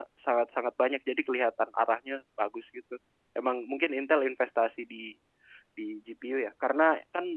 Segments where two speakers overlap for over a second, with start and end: none

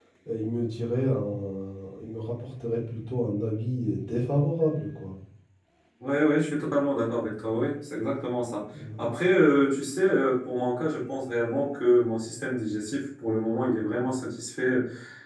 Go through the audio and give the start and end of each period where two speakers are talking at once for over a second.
none

